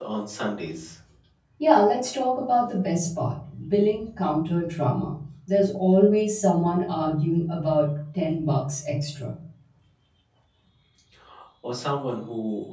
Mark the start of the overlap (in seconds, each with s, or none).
none